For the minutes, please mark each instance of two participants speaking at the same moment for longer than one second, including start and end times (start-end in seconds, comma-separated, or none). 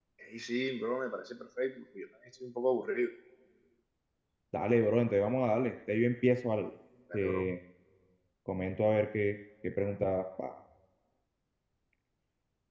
none